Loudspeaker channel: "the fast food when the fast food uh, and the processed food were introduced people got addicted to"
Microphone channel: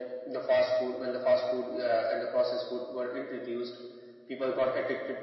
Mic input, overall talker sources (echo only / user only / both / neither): echo only